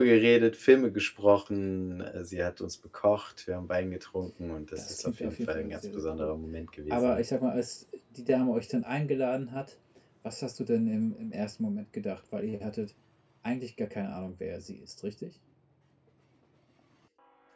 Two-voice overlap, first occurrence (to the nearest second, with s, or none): 5 s